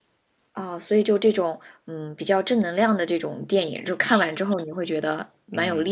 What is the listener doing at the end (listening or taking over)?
taking over